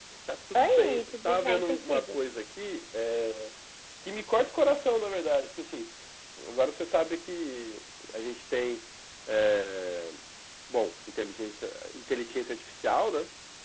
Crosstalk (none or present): present